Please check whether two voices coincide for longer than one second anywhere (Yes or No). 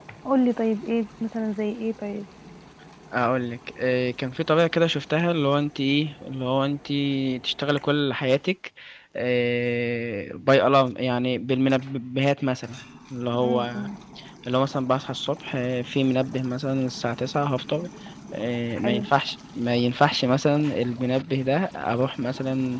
No